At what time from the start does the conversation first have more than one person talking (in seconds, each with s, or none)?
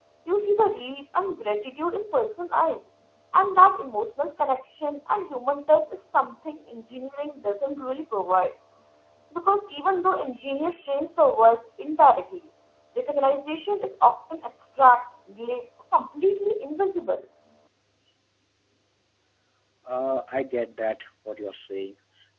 none